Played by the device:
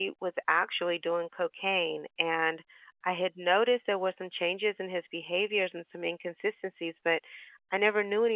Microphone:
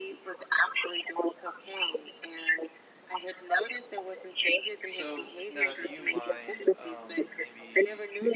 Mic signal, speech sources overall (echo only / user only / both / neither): both